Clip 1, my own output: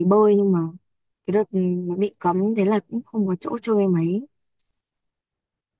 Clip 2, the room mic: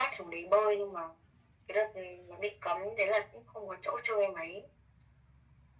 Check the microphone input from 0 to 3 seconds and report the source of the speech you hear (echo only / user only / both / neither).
echo only